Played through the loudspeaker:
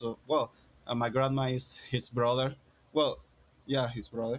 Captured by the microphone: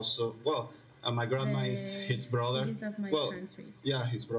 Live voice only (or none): the cities of my country.